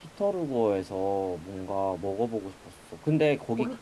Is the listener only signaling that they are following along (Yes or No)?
Yes